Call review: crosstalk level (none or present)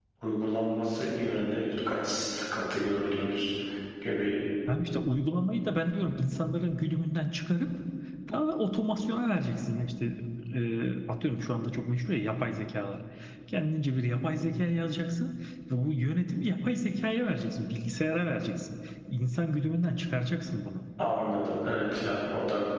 none